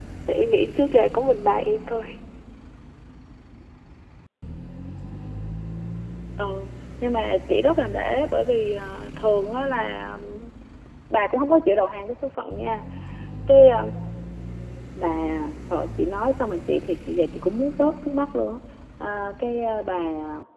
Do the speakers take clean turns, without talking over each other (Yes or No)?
Yes